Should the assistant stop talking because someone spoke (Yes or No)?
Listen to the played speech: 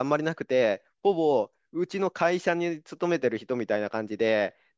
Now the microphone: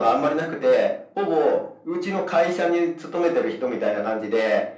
No